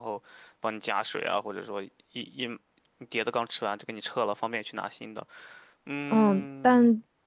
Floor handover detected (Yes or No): Yes